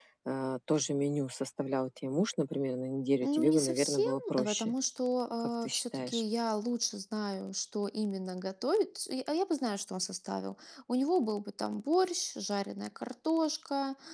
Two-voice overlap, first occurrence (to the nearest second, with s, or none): 3 s